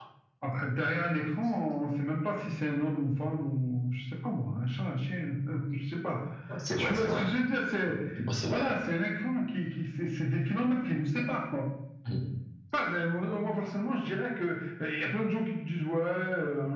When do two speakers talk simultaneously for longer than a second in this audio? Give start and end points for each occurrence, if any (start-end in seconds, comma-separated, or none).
none